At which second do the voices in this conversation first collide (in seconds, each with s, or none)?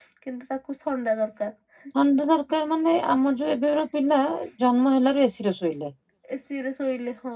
none